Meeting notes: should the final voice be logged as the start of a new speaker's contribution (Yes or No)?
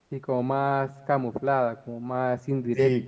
Yes